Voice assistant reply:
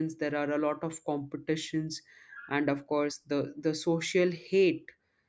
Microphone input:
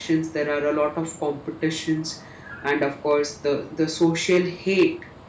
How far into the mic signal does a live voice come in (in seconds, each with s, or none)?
none